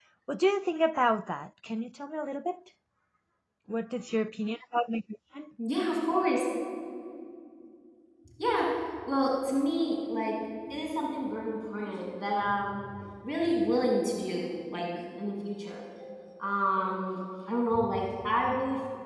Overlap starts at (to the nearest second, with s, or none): none